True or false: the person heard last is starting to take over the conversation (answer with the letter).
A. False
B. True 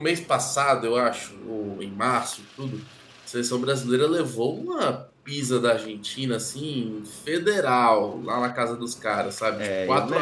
B